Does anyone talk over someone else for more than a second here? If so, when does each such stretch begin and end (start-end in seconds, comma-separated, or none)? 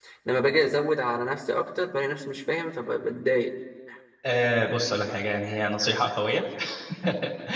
none